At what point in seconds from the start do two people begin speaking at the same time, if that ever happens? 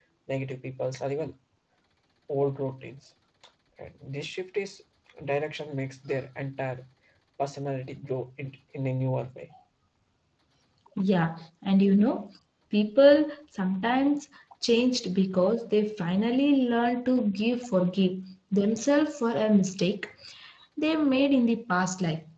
none

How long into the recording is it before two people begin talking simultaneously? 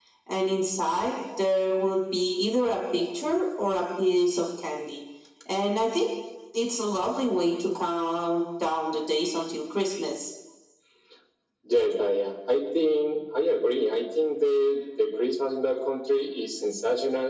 none

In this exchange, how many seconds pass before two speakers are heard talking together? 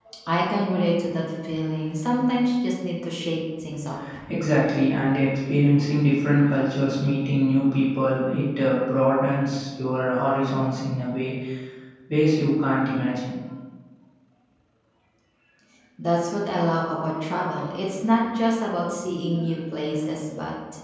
none

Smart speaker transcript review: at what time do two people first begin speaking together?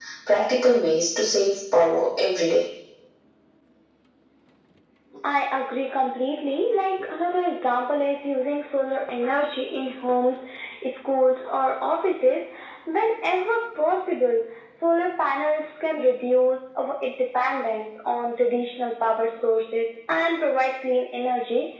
none

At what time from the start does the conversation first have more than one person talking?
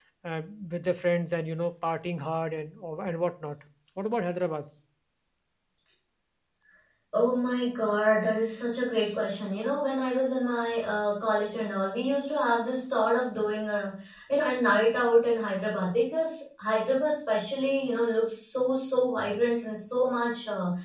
none

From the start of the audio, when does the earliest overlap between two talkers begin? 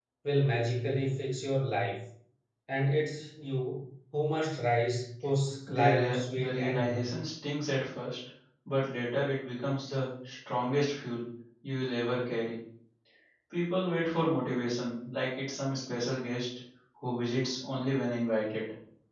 6 s

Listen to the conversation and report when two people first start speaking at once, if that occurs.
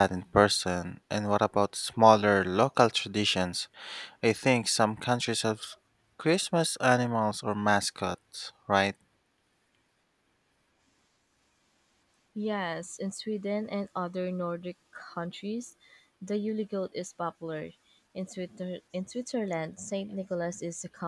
none

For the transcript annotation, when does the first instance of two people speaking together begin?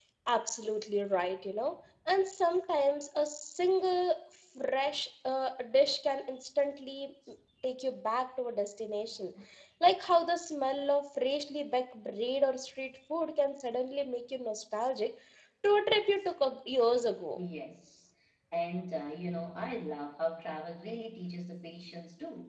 none

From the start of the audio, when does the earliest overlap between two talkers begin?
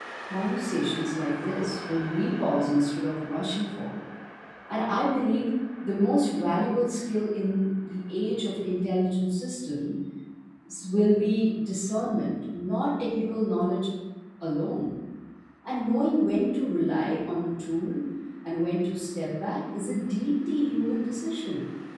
none

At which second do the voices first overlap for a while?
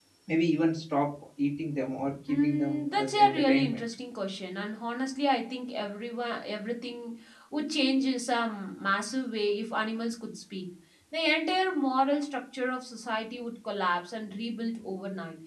2 s

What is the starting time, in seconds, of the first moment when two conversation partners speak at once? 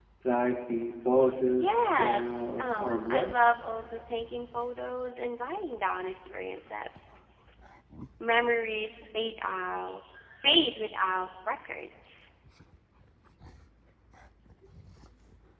2 s

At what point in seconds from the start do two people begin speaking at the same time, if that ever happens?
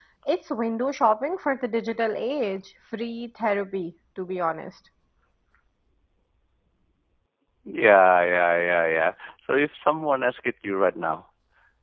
none

